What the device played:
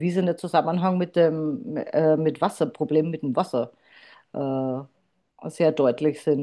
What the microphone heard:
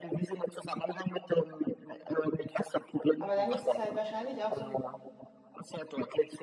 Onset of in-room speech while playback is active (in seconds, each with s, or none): 3.2 s